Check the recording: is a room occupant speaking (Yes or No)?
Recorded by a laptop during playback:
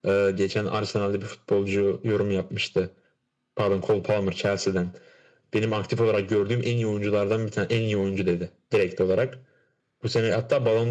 No